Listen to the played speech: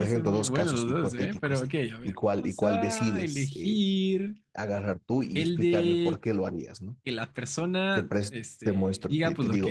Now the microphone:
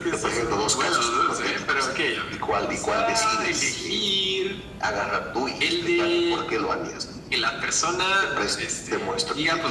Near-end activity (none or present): none